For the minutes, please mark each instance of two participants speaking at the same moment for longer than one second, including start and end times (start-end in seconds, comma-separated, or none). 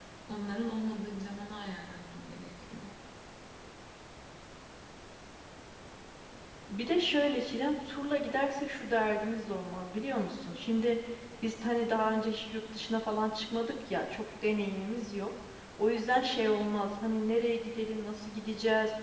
none